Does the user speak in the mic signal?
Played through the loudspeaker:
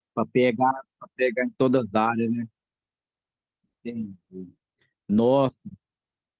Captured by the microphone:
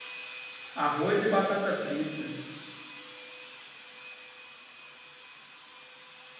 Yes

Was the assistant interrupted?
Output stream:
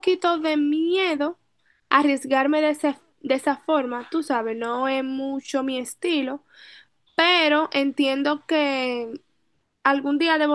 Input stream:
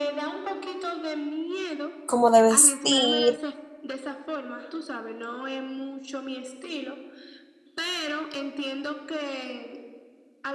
Yes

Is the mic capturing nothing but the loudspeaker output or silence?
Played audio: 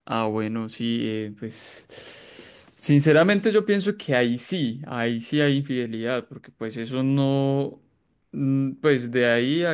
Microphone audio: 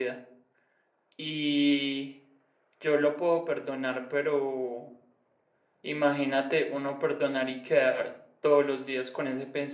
No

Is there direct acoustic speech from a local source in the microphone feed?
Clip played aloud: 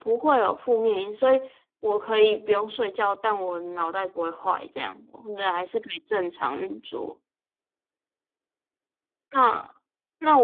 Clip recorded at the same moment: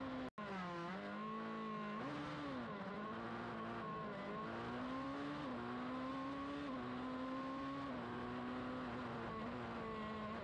No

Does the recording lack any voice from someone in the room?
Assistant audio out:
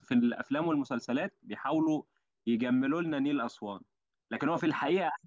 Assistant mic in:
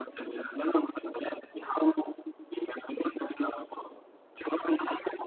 Yes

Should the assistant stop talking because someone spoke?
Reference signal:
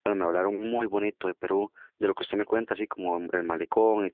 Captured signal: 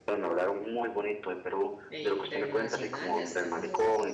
Yes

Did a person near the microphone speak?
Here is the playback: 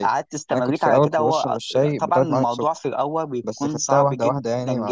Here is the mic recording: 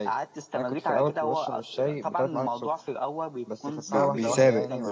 Yes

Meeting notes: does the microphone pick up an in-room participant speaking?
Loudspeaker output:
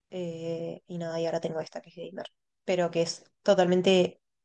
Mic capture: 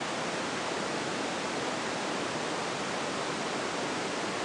No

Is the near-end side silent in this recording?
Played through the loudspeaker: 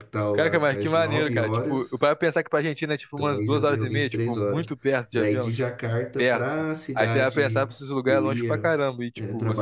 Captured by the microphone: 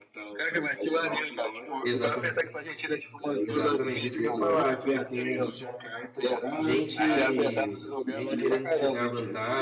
No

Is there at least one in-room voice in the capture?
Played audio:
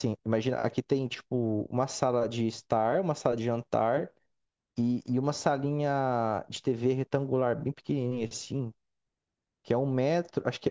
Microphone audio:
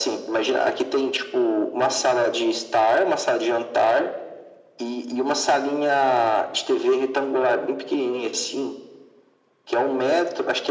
No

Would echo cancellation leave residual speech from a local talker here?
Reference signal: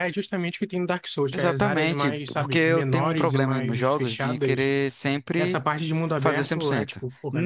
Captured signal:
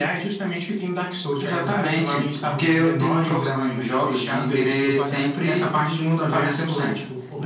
Yes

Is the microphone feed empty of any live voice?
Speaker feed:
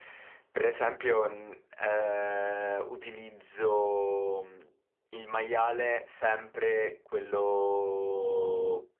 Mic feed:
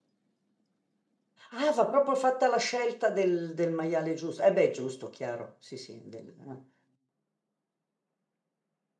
No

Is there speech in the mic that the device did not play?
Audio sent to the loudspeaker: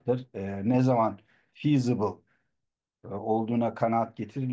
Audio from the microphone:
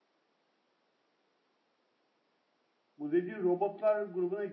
Yes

